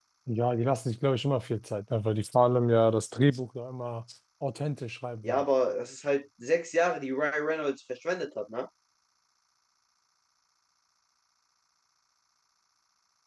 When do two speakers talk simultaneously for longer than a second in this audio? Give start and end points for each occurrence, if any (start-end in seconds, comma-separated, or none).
none